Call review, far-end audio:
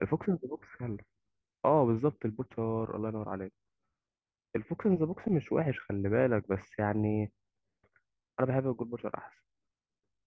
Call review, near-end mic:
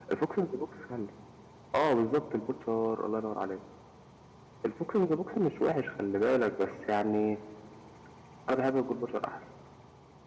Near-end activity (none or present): none